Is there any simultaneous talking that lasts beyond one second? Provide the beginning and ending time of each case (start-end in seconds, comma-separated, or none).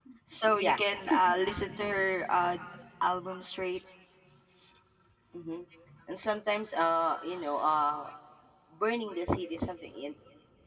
none